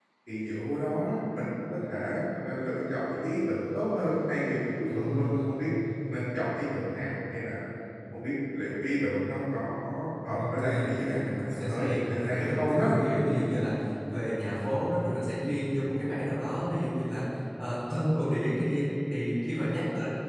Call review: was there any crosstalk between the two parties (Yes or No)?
Yes